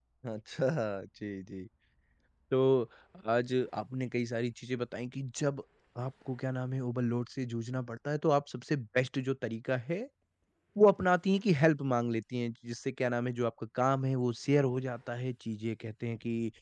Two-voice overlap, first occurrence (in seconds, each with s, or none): none